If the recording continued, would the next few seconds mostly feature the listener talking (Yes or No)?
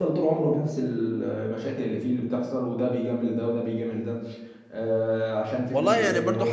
Yes